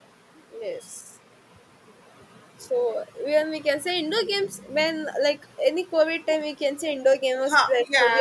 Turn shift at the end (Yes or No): Yes